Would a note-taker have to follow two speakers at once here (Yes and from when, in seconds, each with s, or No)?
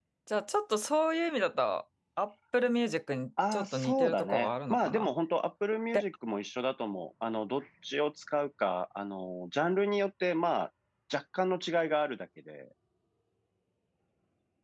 Yes, from 3.4 s